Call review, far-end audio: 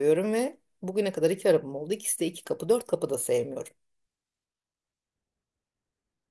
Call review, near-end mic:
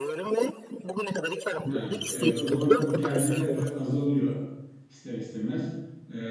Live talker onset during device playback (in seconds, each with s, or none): 1.7 s